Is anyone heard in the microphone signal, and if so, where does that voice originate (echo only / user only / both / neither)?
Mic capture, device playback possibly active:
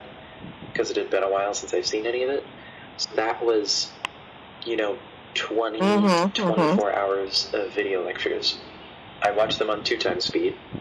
both